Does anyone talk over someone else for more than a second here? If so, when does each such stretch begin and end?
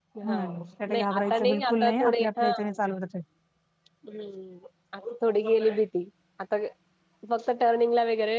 0.9-2.5

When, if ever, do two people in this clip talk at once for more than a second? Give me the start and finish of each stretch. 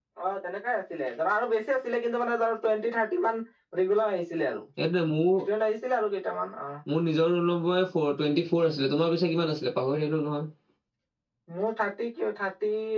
none

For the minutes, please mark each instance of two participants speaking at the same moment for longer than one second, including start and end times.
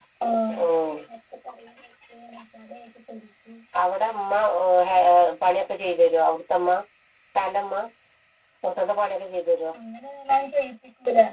none

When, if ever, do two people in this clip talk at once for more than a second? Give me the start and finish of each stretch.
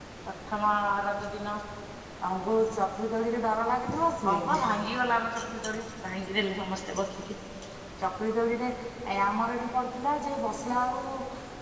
none

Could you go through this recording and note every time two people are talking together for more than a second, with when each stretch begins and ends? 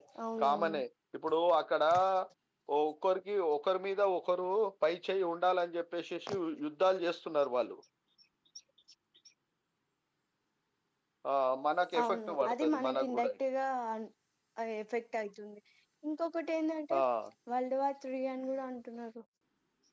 12.0-13.3

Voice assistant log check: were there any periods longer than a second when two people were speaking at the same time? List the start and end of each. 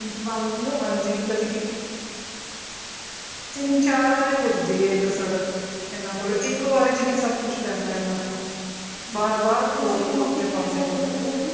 9.8-11.0

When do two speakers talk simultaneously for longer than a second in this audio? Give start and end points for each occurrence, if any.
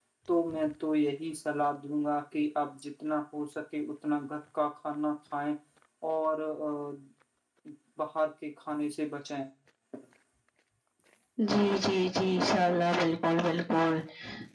none

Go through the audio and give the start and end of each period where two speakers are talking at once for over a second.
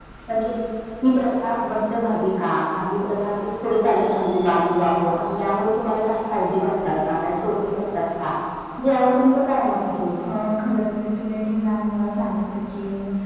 none

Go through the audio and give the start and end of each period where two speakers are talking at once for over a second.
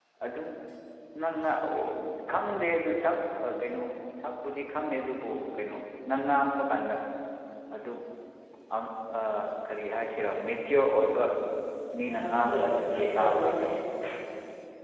12.0-13.6

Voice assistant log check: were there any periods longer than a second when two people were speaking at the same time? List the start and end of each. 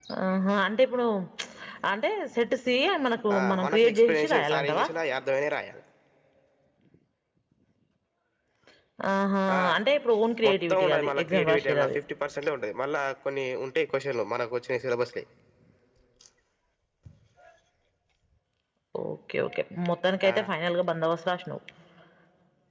3.4-4.9, 10.4-11.9

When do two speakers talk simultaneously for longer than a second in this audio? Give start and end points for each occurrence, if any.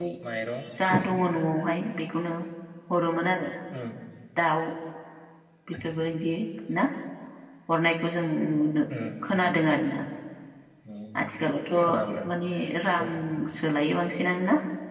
none

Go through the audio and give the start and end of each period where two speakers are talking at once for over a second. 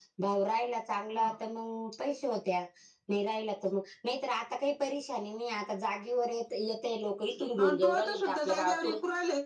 7.6-9.0

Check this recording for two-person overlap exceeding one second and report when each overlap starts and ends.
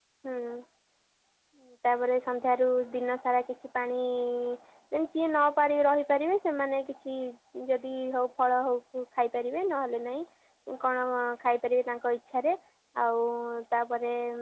none

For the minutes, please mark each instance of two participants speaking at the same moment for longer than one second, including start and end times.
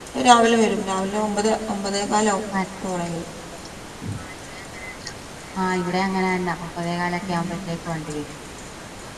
none

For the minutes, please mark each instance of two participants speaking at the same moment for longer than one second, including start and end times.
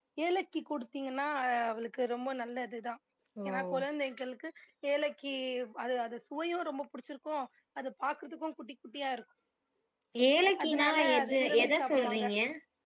10.7-12.2

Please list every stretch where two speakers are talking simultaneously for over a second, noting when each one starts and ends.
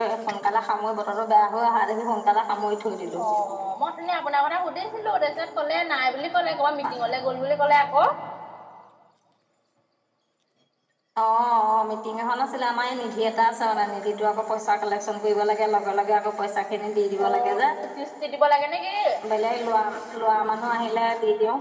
none

